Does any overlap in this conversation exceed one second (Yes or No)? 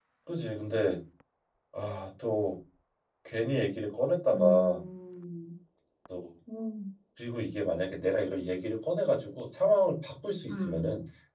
No